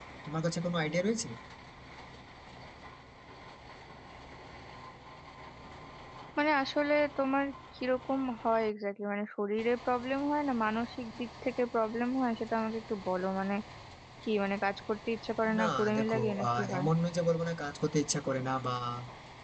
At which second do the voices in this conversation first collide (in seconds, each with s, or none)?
15.4 s